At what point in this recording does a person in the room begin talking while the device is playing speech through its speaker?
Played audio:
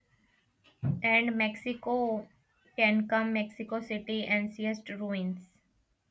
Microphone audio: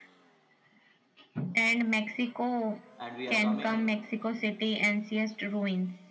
3.0 s

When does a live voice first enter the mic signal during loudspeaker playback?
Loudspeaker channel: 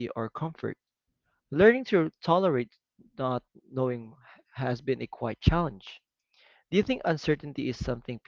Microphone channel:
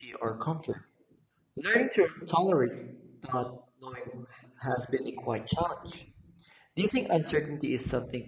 none

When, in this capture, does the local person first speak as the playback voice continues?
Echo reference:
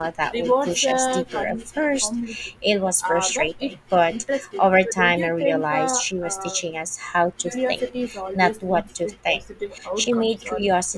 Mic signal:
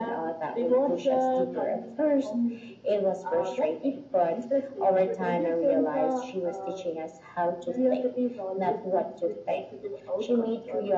none

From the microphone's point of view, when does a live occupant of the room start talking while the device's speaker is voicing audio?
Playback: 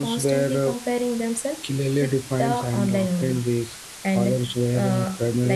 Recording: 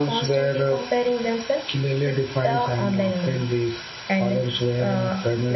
none

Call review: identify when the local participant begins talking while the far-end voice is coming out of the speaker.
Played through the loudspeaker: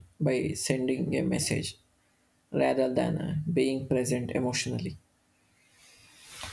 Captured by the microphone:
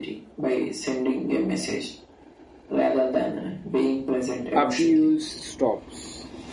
4.5 s

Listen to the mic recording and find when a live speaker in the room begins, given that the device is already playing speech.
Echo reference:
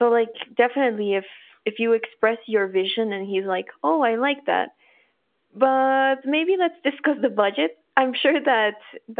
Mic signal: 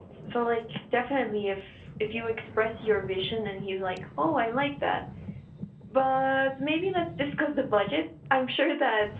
none

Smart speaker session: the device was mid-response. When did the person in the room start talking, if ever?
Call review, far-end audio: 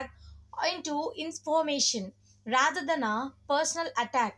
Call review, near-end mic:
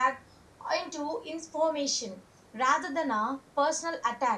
none

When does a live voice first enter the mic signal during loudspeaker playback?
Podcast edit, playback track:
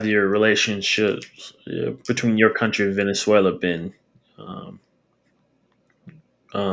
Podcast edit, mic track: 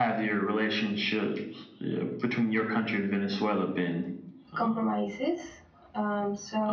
4.5 s

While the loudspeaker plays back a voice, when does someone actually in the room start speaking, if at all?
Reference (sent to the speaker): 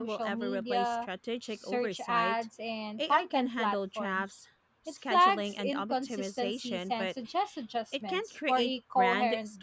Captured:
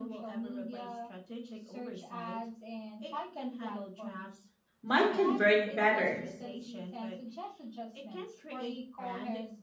4.8 s

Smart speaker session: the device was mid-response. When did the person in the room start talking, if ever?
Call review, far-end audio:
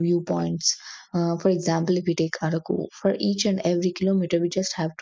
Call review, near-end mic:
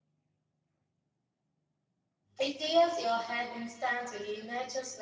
2.4 s

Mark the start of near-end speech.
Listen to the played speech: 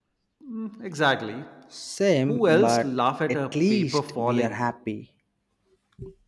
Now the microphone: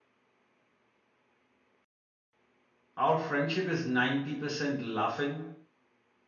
3.0 s

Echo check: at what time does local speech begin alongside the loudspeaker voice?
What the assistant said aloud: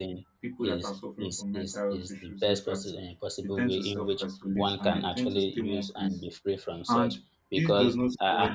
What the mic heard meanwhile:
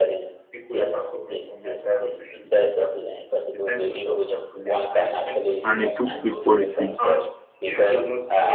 5.6 s

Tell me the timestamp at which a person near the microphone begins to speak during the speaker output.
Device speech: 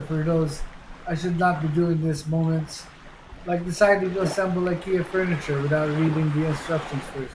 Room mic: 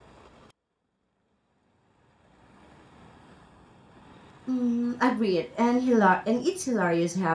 4.5 s

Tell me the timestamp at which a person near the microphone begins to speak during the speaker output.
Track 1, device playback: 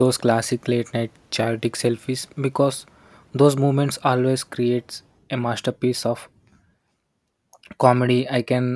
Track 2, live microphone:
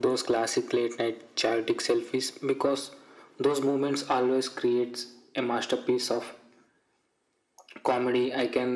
none

